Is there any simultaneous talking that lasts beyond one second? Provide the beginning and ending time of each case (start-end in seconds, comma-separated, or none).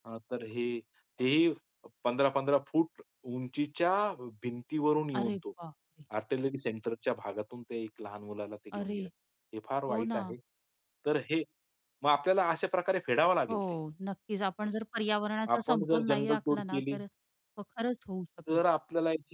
15.5-17.0